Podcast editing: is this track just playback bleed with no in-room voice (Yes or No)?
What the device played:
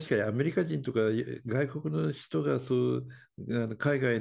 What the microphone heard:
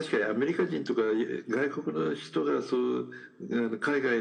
Yes